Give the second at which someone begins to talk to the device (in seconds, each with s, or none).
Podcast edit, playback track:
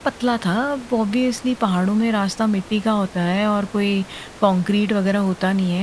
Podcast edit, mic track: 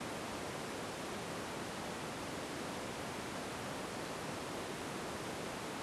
none